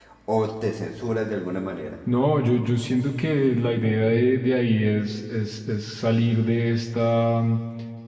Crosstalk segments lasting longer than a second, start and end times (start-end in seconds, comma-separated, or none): none